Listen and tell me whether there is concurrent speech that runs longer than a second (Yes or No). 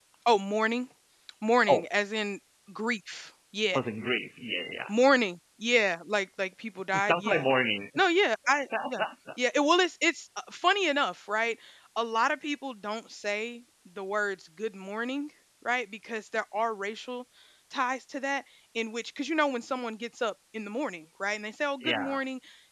No